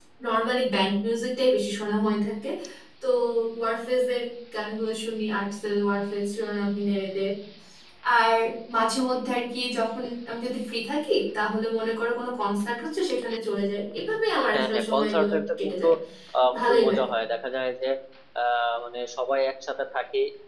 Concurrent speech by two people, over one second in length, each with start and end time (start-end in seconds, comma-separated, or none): 14.5-15.8